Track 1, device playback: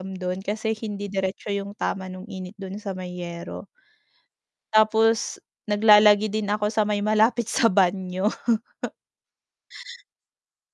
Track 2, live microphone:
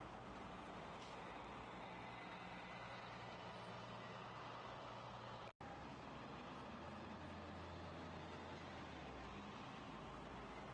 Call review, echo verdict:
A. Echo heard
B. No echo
B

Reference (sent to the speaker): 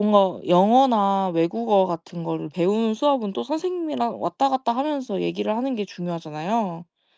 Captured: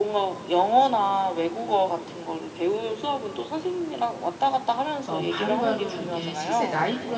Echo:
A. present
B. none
A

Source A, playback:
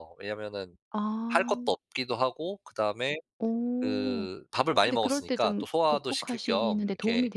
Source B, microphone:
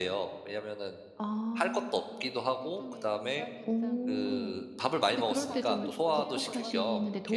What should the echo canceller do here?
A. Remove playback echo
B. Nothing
A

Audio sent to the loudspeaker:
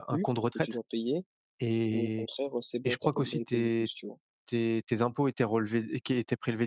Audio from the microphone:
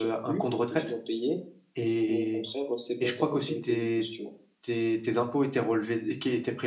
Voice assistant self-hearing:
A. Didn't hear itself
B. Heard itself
B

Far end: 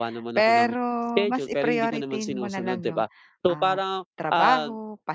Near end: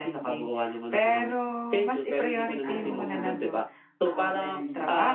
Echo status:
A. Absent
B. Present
B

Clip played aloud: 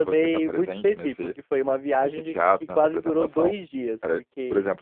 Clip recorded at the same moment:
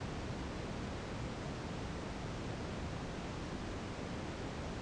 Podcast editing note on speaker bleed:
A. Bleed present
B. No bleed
B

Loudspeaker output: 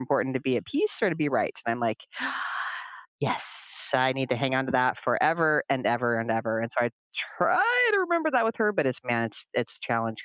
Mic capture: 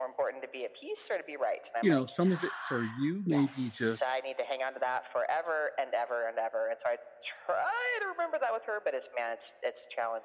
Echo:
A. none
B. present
B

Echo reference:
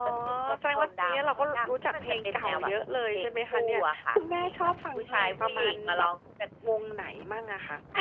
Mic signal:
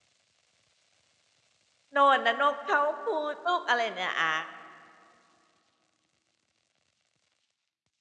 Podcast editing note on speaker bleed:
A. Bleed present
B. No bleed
B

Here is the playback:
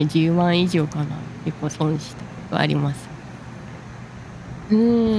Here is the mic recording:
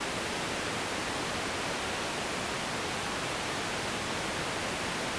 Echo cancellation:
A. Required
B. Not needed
B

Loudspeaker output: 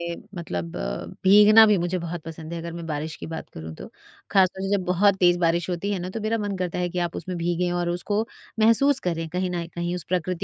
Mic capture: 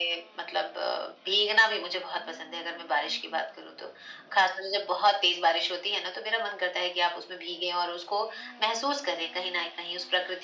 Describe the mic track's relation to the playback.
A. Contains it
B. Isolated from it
A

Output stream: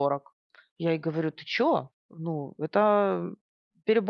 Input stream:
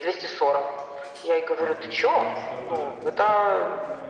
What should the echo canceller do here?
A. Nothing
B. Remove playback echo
B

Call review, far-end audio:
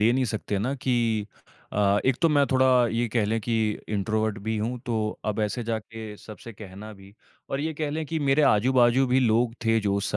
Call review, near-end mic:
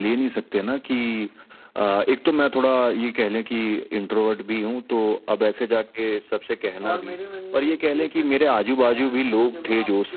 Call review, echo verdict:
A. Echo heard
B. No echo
A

